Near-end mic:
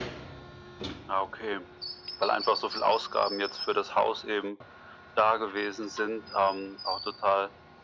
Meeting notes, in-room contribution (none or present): none